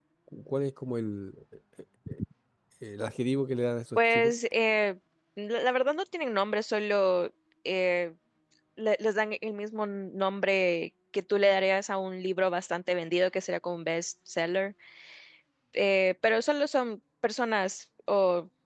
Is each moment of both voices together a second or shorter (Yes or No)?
Yes